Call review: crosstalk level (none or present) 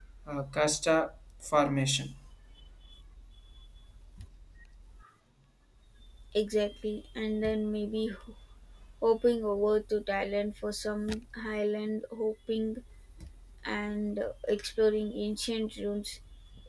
none